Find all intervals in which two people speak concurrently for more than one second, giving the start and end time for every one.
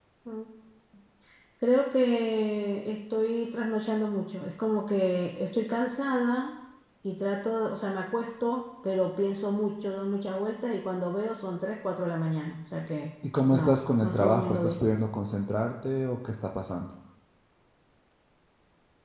13.4-14.8

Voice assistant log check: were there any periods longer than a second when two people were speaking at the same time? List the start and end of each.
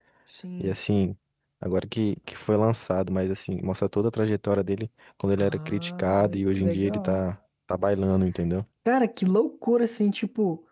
5.4-7.2

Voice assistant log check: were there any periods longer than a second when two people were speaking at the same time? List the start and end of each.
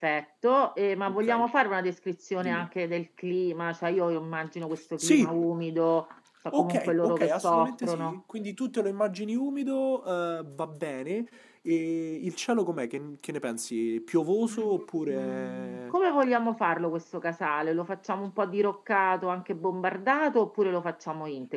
6.5-8.2, 14.5-15.9

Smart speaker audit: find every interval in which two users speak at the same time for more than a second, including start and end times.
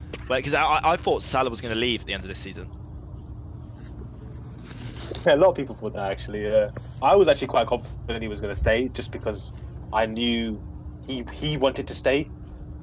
none

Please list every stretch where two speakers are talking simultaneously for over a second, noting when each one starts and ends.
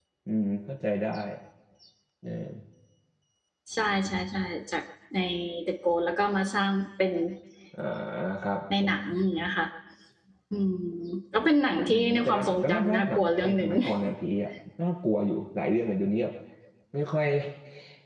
11.9-13.7

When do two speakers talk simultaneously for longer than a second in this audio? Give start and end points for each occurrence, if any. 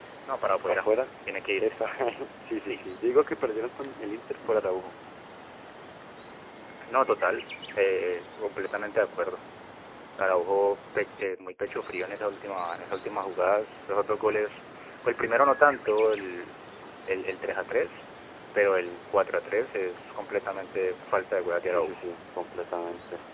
none

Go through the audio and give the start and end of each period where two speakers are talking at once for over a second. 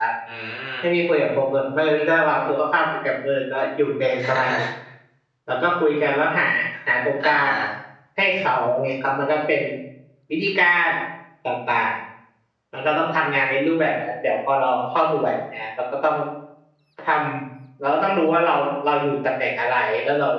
none

